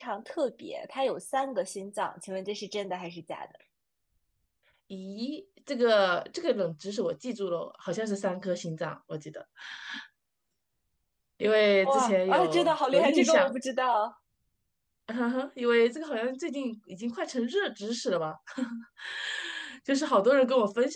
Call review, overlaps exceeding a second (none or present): present